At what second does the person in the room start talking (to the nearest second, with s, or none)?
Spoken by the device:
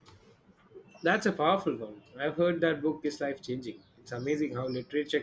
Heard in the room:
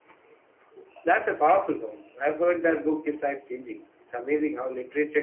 none